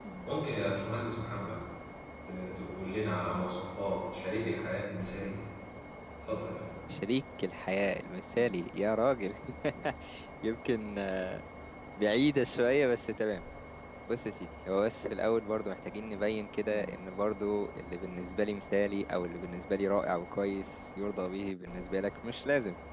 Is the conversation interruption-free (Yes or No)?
Yes